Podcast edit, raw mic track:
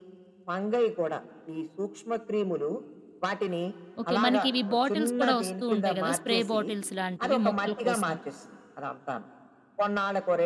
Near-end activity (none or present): present